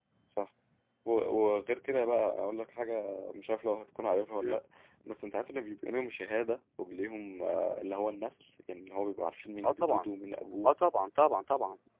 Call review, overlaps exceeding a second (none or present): none